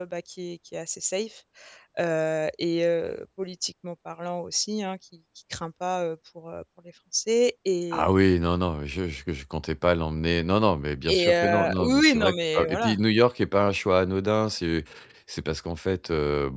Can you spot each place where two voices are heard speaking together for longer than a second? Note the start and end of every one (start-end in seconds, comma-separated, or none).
11.1-13.0